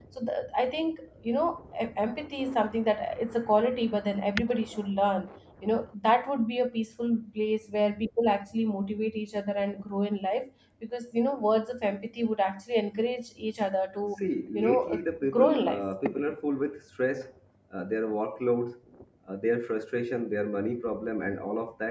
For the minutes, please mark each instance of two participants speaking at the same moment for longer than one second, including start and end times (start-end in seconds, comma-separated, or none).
14.6-15.8